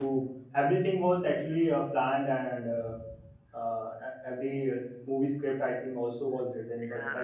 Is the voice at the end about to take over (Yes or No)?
Yes